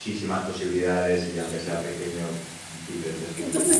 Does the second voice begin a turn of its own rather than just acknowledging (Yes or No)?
Yes